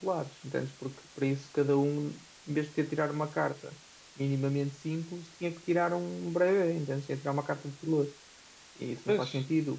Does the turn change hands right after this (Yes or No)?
No